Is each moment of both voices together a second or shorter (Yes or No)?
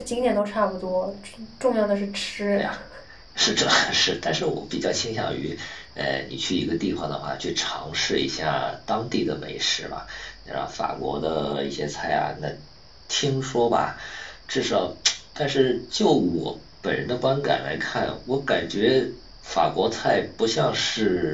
Yes